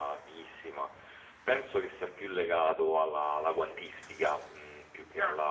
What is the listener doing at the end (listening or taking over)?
listening